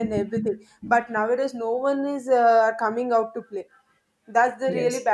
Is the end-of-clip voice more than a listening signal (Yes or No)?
No